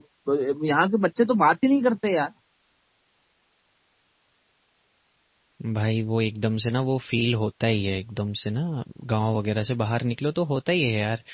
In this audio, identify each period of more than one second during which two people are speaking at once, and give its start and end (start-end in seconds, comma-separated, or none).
none